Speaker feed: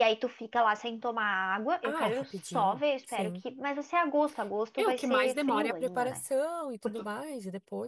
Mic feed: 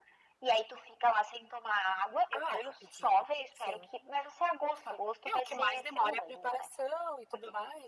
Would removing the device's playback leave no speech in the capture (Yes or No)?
Yes